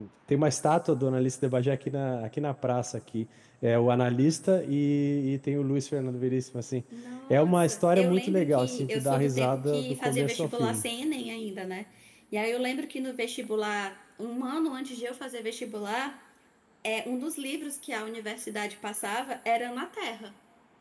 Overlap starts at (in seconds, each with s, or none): 7.3 s